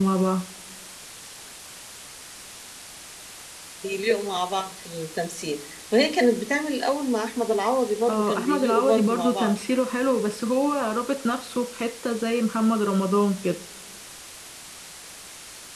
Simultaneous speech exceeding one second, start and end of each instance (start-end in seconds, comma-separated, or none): 8.1-9.5